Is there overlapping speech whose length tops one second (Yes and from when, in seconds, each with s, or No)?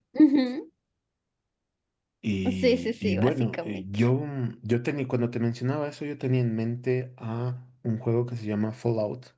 Yes, from 2.5 s